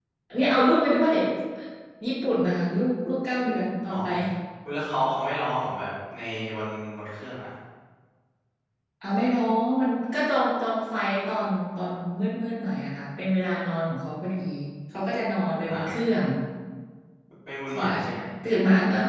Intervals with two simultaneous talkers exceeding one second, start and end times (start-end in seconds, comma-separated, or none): none